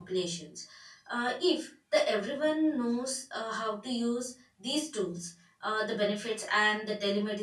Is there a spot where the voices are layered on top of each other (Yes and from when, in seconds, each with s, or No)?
No